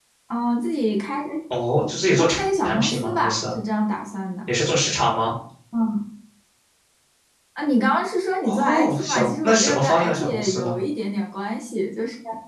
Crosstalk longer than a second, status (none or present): present